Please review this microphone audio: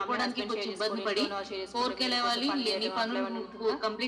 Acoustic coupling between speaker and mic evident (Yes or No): Yes